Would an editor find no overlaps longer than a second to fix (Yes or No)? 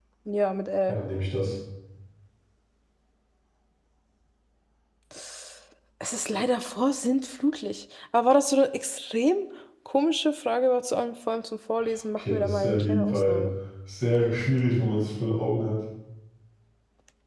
No